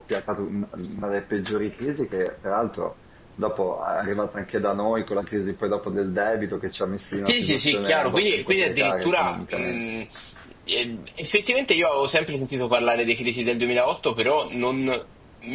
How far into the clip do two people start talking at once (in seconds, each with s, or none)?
7.3 s